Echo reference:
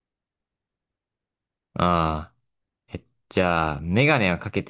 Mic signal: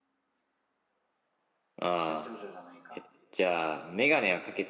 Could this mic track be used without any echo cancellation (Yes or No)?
No